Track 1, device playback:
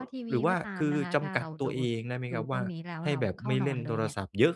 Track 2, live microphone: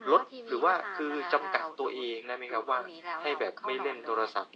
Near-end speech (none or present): none